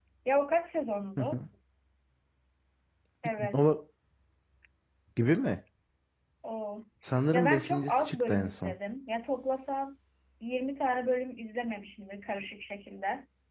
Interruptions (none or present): present